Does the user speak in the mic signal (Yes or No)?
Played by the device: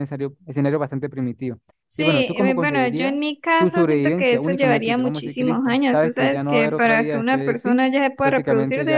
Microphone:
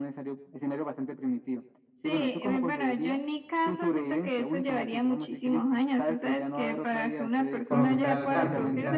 Yes